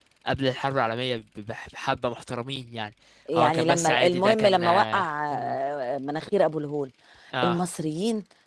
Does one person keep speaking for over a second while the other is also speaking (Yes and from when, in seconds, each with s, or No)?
Yes, from 3.3 s